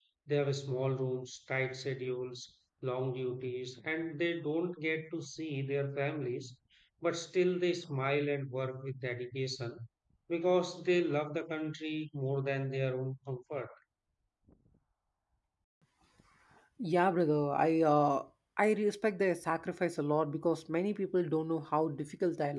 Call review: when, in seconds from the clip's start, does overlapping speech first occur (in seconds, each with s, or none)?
none